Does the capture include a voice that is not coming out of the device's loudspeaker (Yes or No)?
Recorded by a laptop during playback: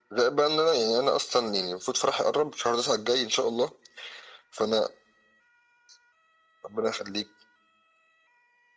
No